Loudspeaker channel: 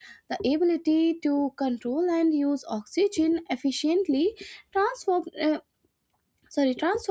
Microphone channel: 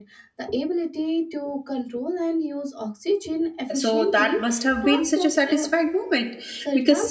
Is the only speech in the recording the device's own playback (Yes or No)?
No